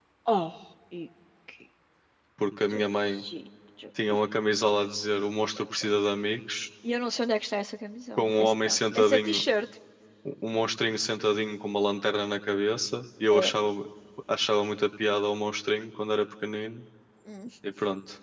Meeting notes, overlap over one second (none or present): present